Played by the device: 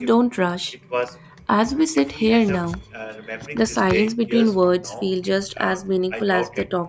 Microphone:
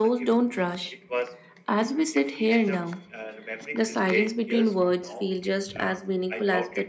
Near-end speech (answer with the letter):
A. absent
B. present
A